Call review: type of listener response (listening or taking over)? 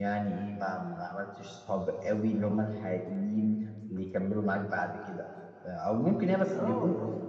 taking over